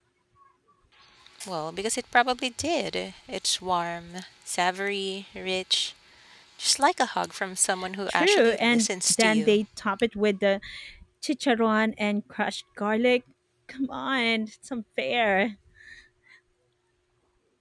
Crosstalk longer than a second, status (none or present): present